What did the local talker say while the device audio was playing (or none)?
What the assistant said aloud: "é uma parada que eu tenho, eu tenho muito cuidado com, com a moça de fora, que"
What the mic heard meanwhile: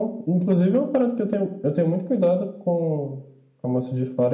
none